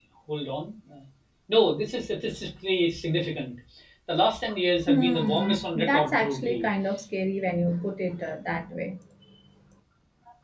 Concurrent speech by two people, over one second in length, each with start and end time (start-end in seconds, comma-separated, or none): 4.9-6.7